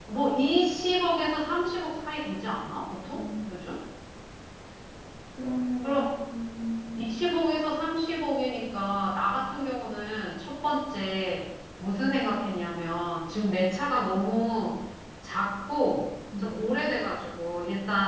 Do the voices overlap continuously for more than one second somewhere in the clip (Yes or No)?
No